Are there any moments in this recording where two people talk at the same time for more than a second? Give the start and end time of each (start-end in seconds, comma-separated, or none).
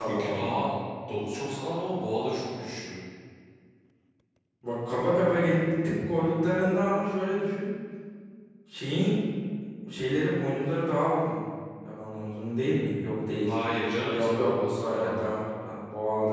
14.1-15.4